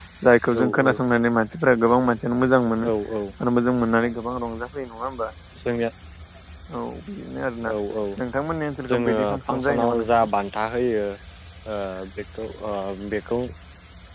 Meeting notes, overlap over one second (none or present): present